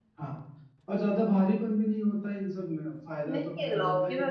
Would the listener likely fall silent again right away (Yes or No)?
No